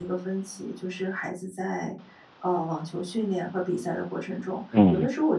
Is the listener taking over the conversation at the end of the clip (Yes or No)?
No